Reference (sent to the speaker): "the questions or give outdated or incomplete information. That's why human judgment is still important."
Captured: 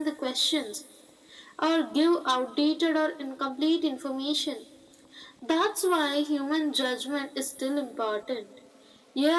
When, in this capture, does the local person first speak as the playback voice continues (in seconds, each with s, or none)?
none